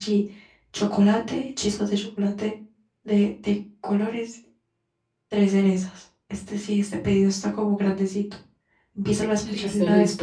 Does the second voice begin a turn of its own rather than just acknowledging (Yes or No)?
Yes